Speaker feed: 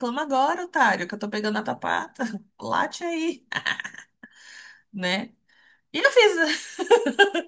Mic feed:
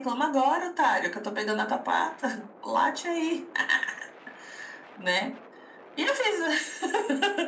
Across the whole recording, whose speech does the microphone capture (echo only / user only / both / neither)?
echo only